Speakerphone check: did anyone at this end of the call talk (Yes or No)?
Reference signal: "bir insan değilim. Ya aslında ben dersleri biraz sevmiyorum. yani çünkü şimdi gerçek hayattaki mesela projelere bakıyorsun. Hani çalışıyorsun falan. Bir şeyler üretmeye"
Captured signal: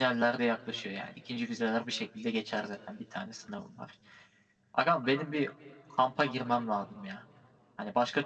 Yes